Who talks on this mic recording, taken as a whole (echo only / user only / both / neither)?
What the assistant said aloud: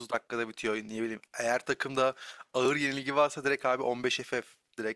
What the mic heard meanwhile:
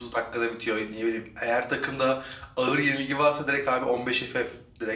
echo only